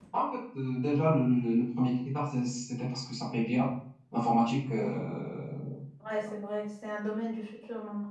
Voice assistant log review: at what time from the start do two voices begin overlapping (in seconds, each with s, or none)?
none